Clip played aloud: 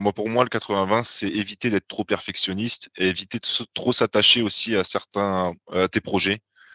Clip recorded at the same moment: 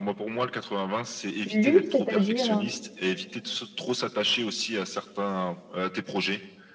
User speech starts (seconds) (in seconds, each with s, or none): 1.5 s